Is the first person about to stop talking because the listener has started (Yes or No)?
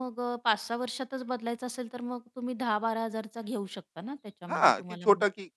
Yes